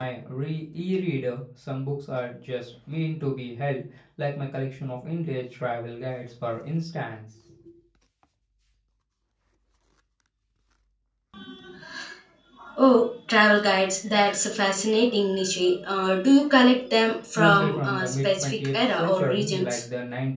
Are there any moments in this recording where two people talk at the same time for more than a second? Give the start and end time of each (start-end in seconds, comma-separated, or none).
17.4-19.8